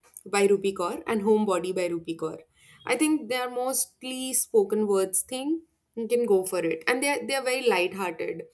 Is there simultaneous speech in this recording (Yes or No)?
No